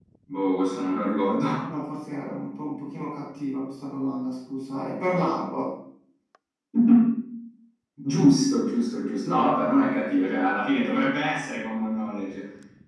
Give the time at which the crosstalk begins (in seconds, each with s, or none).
none